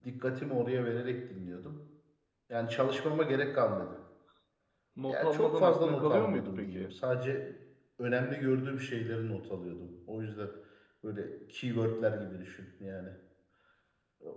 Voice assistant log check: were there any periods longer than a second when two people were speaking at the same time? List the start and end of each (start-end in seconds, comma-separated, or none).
5.1-7.0